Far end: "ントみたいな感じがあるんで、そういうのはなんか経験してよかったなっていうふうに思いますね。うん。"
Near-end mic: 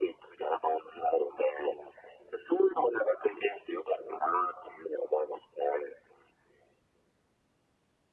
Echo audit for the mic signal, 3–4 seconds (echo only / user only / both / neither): echo only